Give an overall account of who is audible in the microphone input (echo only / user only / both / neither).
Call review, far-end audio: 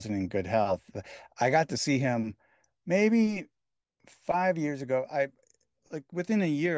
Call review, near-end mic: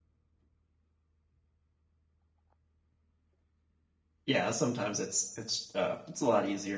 user only